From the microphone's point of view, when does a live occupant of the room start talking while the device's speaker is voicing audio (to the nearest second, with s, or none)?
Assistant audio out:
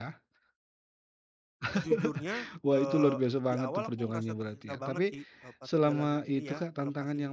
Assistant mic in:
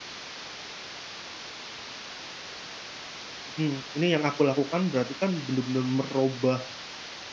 4 s